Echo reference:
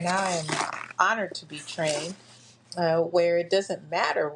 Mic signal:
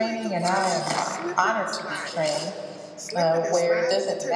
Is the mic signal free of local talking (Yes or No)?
No